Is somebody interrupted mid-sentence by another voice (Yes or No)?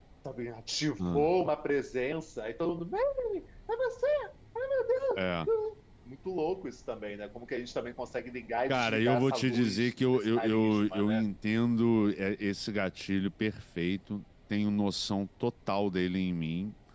Yes